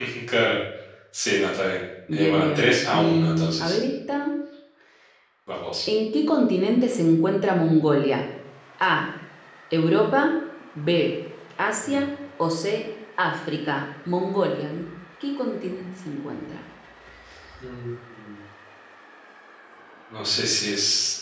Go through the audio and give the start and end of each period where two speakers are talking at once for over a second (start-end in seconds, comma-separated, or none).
2.1-3.8